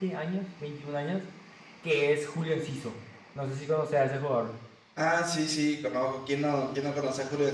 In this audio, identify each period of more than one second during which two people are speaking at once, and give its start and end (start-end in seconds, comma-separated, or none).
none